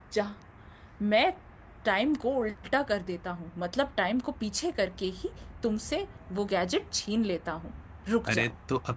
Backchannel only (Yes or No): No